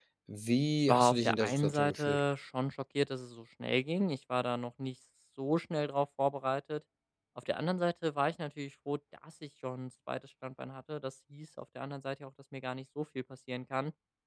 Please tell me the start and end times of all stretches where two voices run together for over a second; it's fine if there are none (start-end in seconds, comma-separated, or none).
0.8-2.2